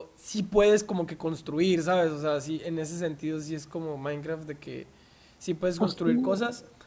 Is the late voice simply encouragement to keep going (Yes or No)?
Yes